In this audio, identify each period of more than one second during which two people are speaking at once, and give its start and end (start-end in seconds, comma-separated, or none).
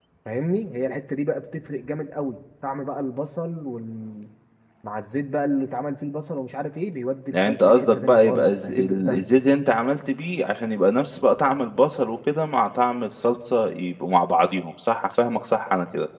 7.3-9.3